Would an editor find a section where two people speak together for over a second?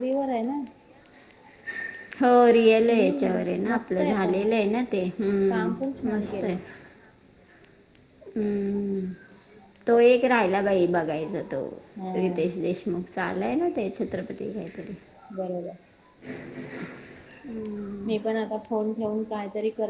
Yes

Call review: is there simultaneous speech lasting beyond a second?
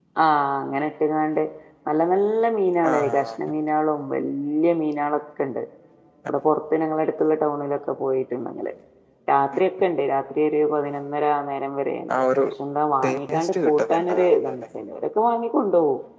Yes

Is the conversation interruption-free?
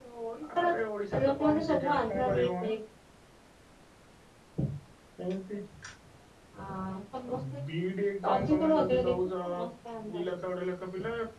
No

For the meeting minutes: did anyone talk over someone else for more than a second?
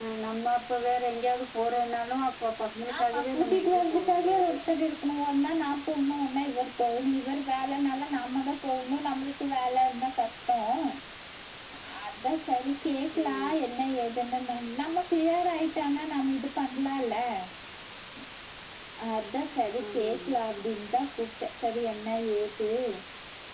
Yes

